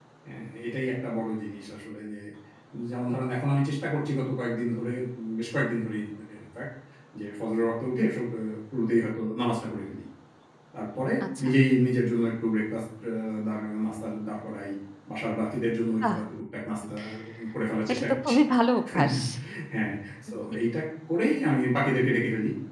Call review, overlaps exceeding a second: none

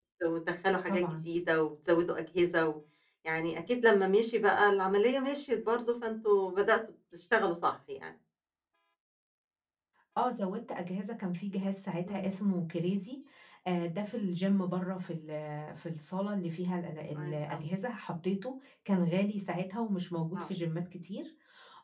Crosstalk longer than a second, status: none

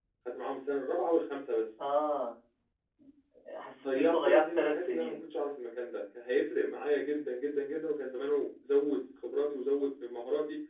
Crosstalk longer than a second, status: present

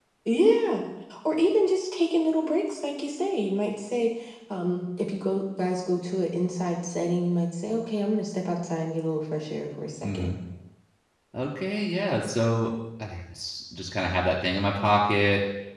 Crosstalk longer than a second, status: none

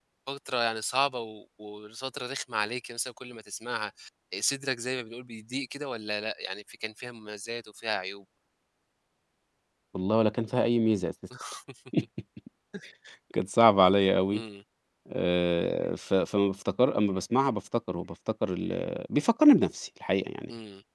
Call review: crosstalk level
none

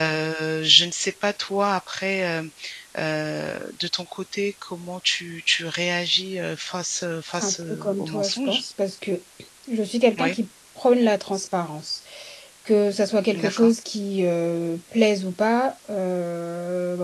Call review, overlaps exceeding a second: present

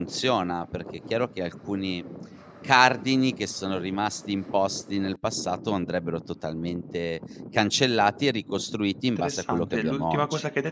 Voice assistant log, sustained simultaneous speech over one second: present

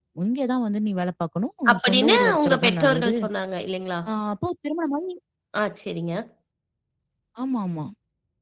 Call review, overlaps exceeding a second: present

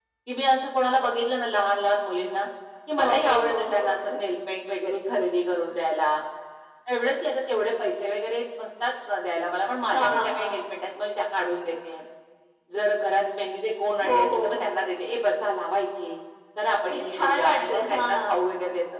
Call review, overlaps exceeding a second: present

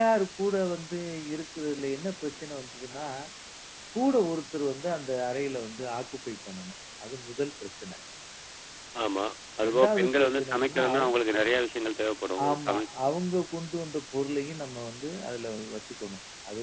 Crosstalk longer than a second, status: present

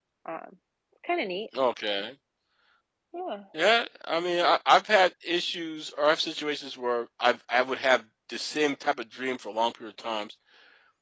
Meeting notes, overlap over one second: none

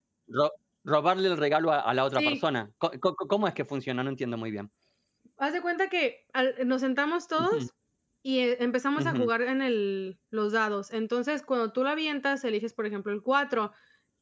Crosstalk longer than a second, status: none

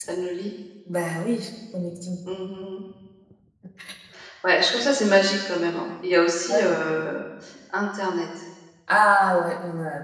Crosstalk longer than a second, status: none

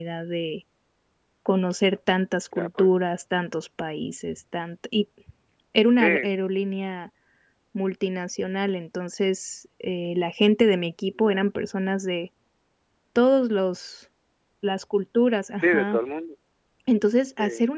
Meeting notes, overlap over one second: none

